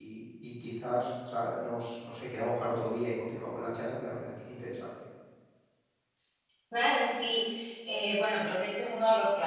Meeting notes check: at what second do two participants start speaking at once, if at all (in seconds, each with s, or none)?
none